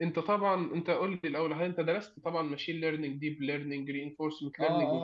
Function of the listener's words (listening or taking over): taking over